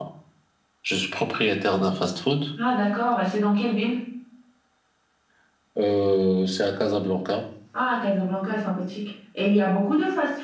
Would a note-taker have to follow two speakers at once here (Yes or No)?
No